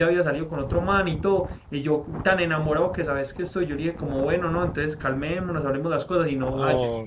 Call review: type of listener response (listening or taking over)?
listening